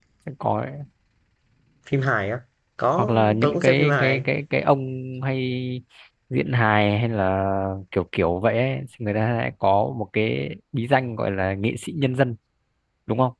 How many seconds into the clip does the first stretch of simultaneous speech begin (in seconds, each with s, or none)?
2.9 s